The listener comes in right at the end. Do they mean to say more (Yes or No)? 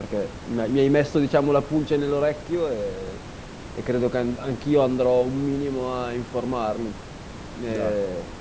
No